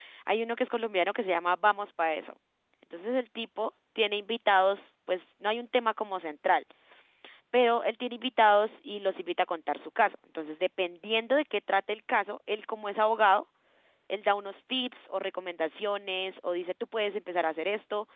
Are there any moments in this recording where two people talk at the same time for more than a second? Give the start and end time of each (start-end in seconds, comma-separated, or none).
none